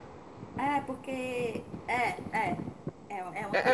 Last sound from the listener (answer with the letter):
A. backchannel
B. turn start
B